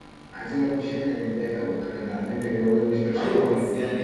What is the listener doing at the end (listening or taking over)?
taking over